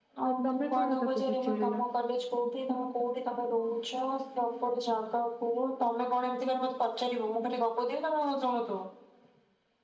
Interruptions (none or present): present